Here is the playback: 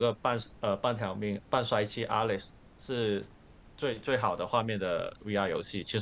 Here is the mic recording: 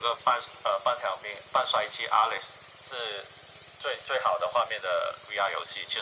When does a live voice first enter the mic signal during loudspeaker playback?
none

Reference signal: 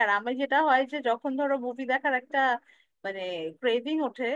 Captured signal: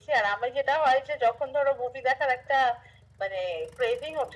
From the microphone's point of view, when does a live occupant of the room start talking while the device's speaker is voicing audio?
none

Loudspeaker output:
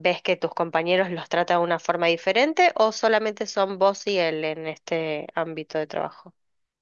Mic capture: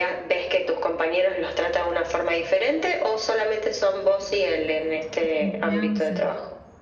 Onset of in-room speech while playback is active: 5 s

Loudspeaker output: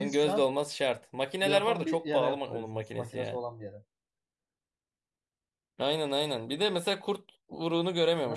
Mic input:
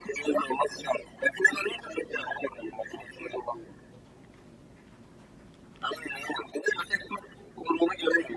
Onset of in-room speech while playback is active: none

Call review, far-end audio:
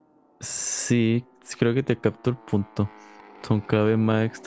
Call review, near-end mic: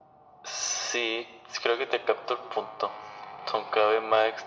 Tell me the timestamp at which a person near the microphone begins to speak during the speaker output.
none

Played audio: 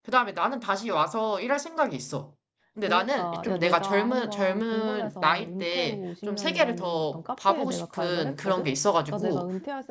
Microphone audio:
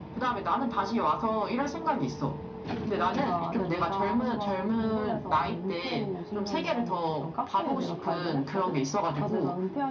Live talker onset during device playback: none

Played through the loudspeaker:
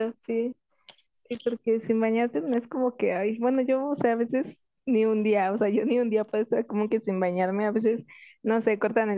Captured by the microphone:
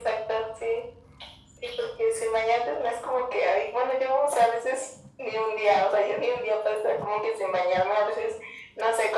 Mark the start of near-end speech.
none

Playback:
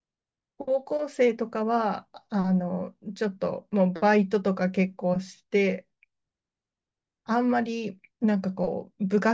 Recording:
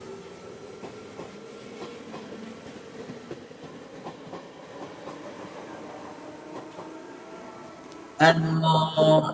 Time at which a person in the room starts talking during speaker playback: 8 s

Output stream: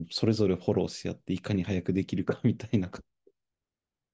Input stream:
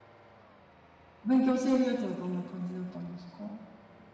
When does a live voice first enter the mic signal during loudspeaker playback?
1 s

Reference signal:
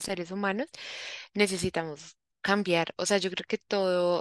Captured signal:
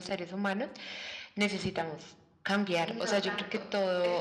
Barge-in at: 3 s

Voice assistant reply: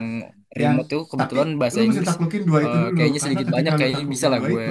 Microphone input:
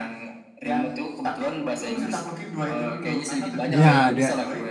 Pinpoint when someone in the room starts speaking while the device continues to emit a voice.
4 s

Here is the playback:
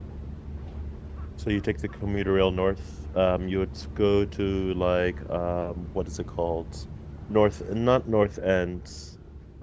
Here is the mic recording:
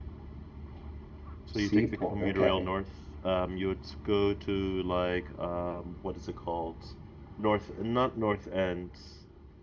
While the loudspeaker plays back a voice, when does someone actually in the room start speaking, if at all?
1 s

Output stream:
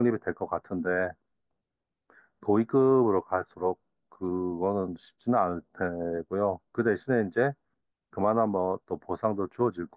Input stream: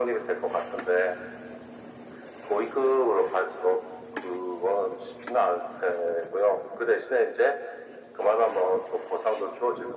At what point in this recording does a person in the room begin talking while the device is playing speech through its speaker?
none

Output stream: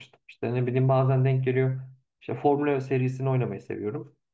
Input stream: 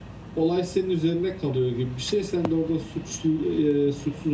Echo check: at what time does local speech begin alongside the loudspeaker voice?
0 s

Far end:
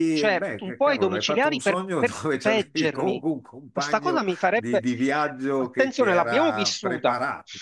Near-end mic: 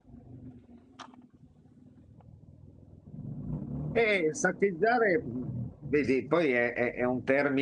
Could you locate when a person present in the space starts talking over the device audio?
4 s

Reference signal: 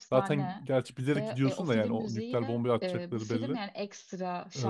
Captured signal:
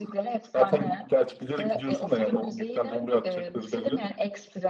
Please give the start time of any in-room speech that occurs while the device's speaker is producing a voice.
none

